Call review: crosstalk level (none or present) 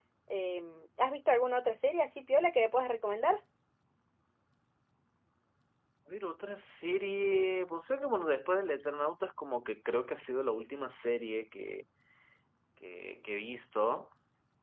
none